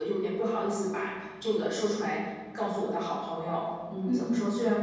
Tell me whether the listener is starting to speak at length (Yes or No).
No